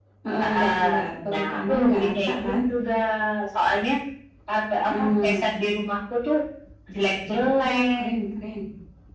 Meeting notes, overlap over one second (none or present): present